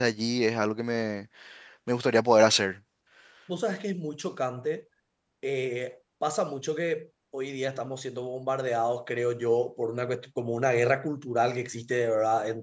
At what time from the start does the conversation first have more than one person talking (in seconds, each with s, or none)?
none